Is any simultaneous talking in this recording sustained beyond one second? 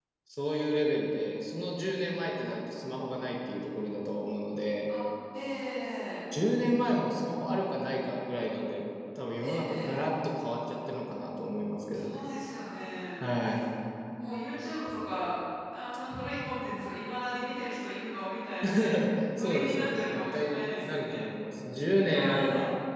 Yes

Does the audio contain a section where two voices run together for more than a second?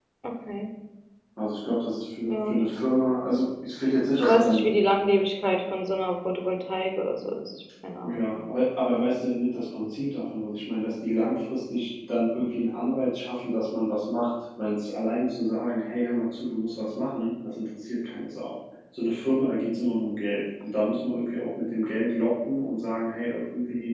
No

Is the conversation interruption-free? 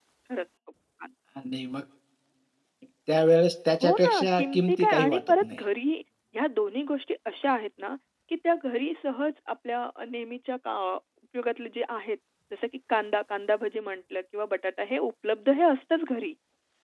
No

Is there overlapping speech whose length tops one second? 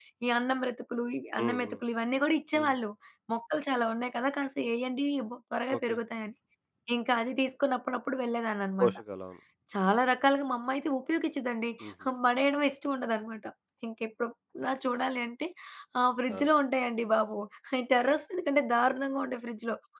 No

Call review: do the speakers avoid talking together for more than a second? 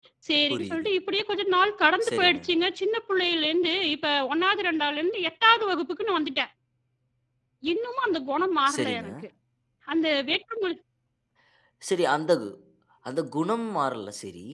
Yes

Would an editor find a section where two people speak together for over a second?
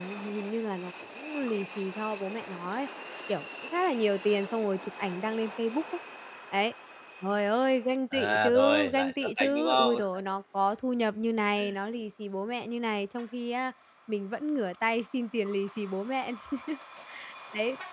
Yes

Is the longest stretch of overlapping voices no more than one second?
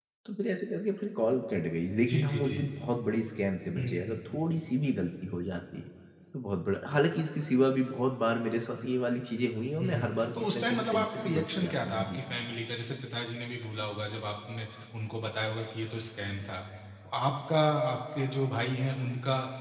No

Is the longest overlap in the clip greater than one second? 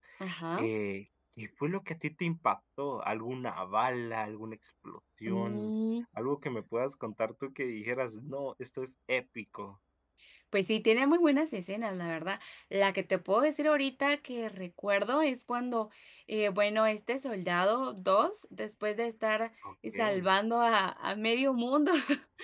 No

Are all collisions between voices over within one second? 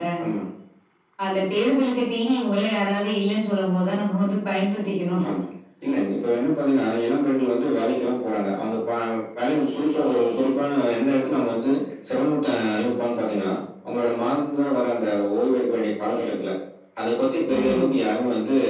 Yes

